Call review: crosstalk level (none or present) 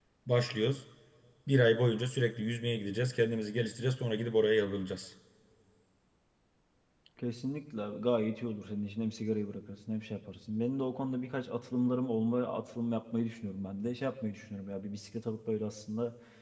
none